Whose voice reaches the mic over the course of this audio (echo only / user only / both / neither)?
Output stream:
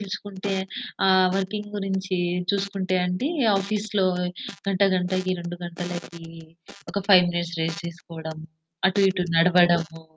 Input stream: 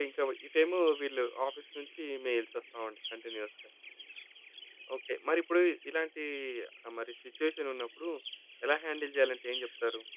user only